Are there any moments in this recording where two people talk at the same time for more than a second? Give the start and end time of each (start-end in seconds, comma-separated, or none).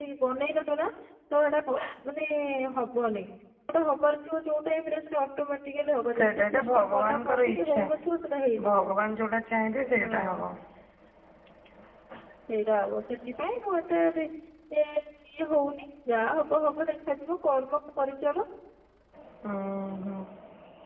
6.2-7.8